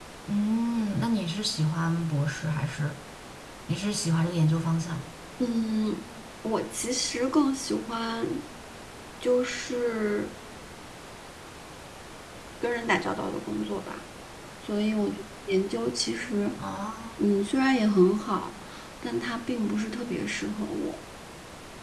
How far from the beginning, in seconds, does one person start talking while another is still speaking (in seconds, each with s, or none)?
none